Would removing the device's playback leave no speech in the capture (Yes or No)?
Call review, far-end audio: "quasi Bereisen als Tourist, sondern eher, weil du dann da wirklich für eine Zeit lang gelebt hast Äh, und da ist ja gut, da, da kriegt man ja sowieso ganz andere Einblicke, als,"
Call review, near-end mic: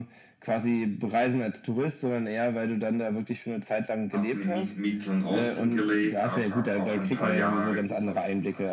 No